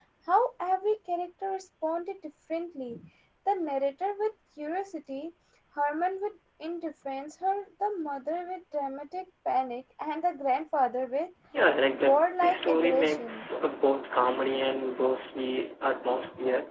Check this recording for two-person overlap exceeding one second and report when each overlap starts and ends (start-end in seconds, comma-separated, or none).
11.9-13.5